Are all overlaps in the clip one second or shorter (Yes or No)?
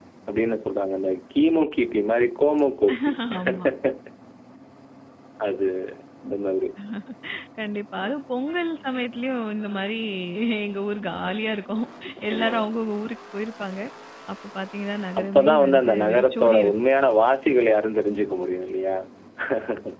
No